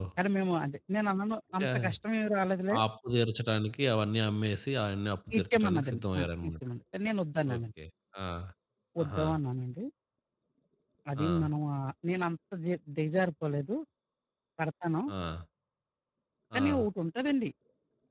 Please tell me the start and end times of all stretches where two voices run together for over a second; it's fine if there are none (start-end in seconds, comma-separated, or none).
5.3-6.5